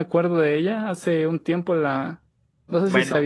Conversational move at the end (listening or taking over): listening